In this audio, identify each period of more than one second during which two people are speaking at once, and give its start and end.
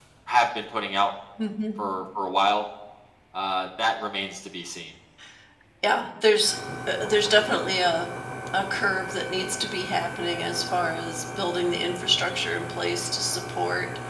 none

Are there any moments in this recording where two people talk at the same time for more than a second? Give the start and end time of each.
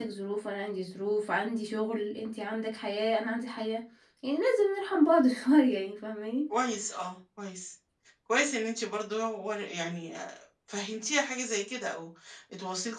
none

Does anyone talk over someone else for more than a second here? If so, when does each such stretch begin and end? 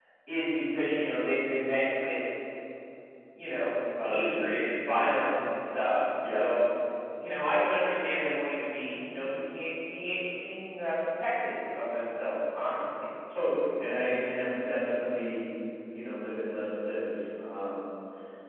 4.0-5.2

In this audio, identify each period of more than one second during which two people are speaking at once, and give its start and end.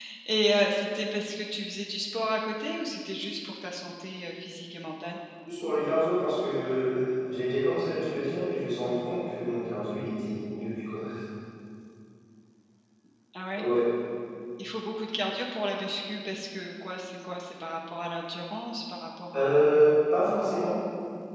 none

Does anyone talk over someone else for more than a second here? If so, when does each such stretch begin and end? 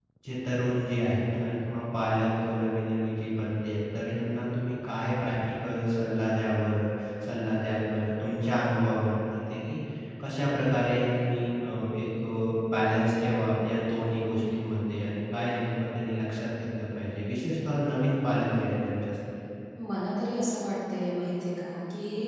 none

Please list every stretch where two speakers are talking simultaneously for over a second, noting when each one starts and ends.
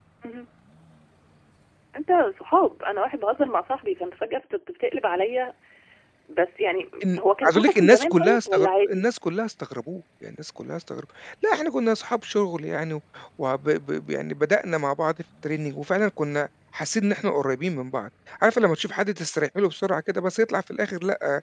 7.1-9.0

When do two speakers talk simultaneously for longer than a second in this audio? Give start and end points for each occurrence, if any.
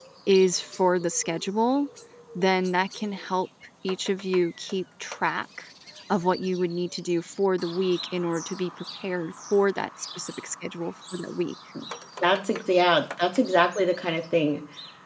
none

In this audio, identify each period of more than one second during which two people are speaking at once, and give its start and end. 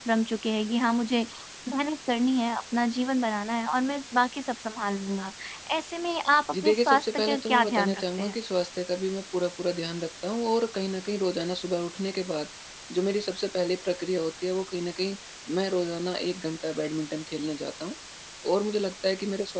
6.5-8.3

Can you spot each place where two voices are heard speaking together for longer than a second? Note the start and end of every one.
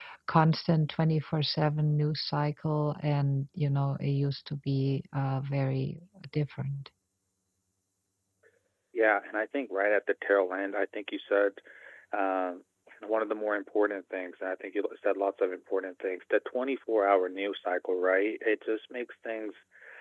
none

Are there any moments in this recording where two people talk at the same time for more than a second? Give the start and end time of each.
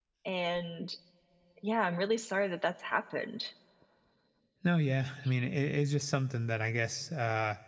none

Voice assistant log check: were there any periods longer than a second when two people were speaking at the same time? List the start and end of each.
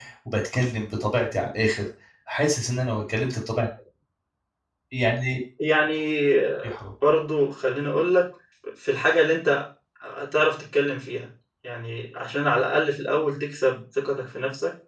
none

